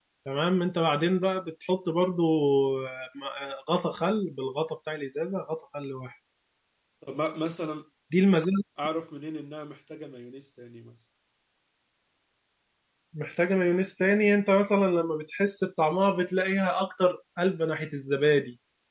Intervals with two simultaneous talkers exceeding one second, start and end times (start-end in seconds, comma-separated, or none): none